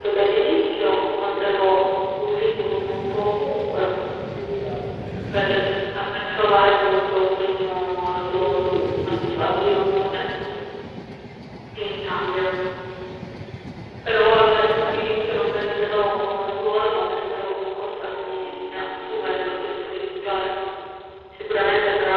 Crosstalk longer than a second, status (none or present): present